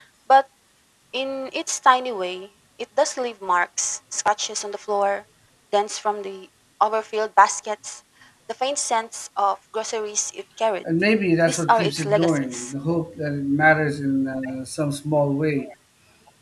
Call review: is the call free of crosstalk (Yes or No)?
No